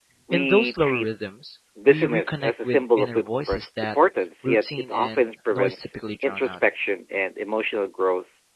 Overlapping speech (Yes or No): Yes